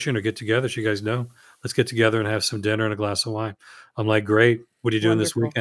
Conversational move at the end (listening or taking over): listening